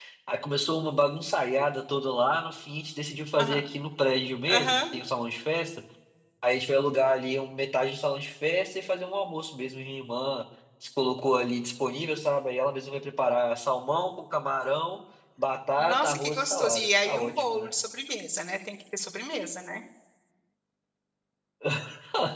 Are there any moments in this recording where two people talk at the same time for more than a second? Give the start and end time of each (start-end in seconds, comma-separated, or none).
15.8-17.7